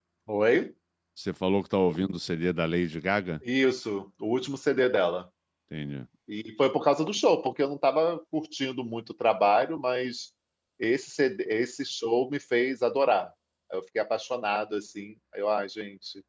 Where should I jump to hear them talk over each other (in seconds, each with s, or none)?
none